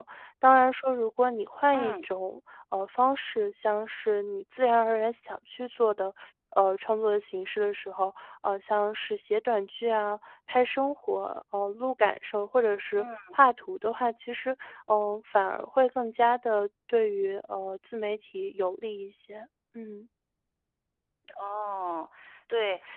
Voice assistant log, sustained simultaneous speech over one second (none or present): none